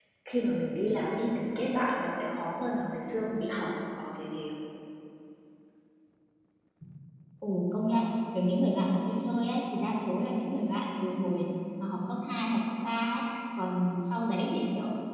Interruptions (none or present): none